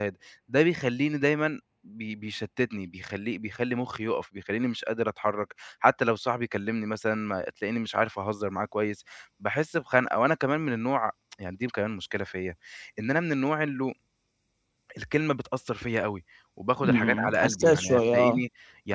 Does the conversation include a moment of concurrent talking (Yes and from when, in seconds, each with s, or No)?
Yes, from 16.8 s